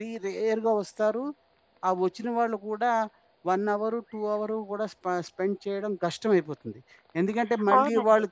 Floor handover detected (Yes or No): Yes